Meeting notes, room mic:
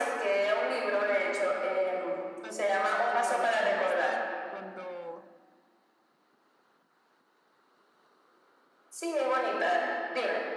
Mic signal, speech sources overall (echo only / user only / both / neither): both